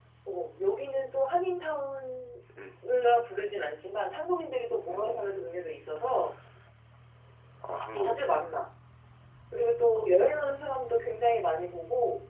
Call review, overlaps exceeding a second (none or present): none